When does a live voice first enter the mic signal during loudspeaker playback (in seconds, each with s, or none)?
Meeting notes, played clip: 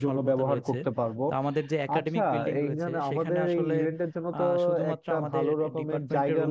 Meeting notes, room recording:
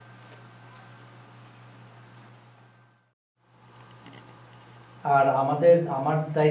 5.1 s